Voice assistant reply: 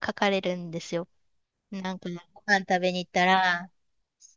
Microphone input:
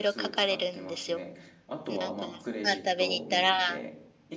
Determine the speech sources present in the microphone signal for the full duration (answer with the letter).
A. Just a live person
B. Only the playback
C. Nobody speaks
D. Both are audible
D